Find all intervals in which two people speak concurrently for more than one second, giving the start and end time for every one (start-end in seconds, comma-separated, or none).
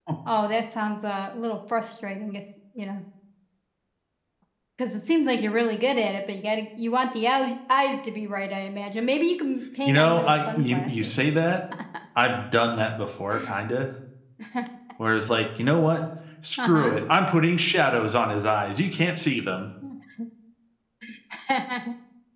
9.8-11.3